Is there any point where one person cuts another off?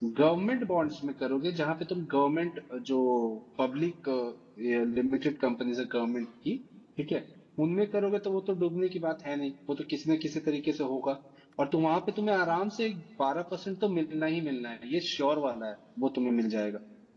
No

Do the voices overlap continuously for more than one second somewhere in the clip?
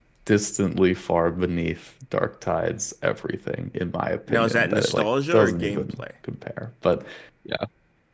Yes, from 4.3 s

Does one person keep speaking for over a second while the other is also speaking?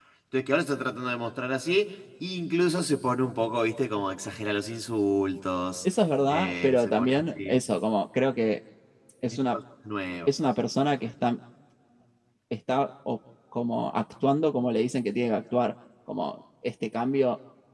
Yes, from 6.3 s

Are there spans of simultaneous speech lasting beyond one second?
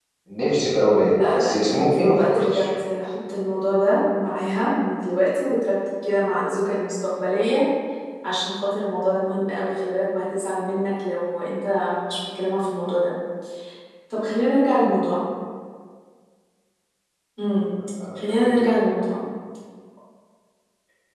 Yes, from 1.1 s

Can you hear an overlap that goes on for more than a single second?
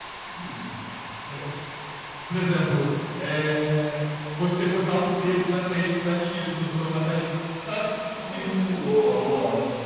No

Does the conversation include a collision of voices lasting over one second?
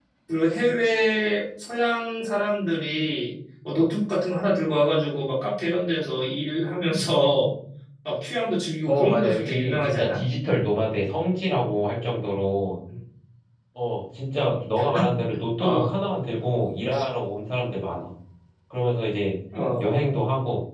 Yes, from 8.9 s

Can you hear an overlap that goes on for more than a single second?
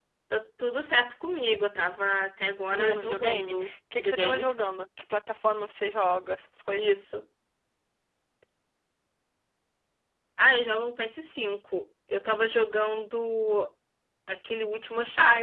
Yes, from 2.7 s

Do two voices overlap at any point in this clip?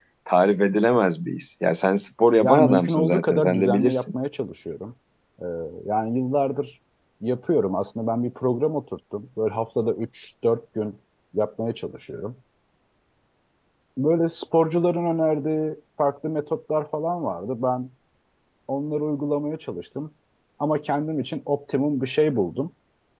Yes, from 2.4 s

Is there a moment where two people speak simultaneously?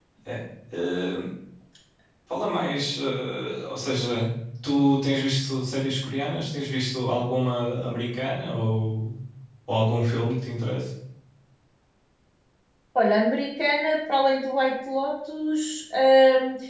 No

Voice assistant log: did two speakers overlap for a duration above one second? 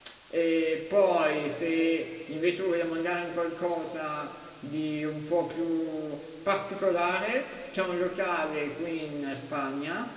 No

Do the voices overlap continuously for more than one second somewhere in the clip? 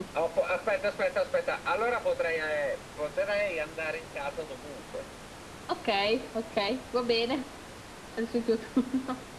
No

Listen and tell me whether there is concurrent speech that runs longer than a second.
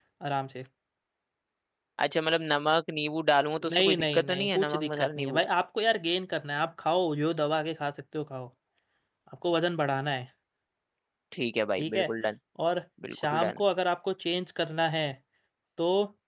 Yes, from 3.7 s

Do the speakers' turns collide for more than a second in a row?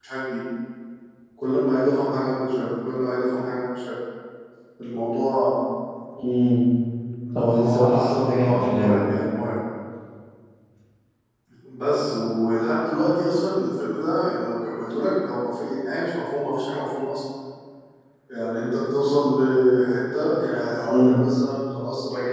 Yes, from 7.4 s

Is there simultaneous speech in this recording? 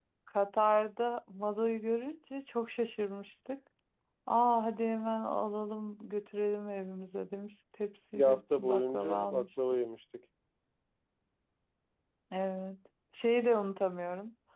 Yes, from 8.2 s

